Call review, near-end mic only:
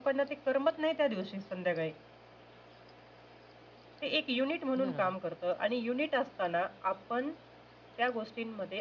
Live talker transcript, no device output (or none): बरोबर.